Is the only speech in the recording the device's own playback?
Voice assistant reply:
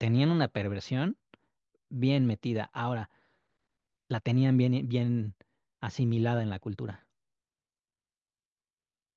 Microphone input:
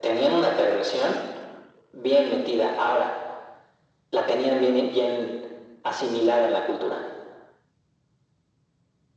Yes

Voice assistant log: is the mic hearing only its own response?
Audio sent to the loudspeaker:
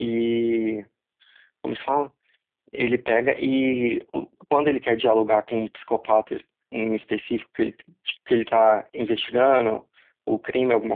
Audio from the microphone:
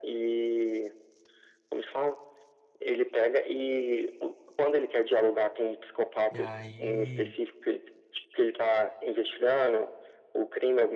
No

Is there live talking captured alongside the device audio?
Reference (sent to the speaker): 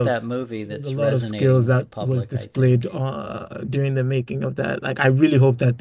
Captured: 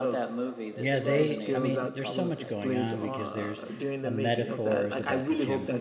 Yes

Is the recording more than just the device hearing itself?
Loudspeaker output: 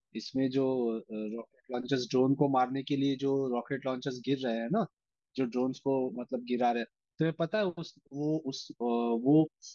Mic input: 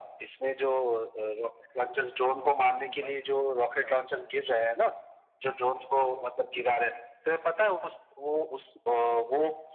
Yes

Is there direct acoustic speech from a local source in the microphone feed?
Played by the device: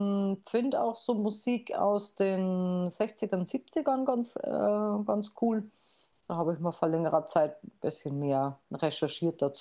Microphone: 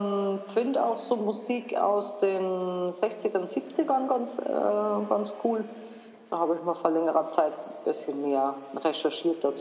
No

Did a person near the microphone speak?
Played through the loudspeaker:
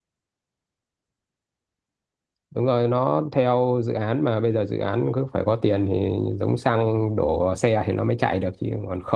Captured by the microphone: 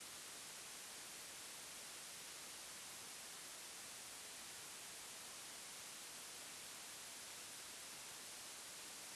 No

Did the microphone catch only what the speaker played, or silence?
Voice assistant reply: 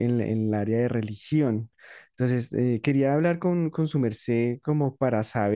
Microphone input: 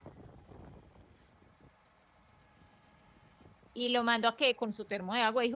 No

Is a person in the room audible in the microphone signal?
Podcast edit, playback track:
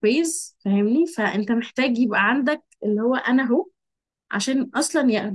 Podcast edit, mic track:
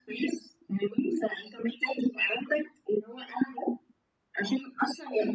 No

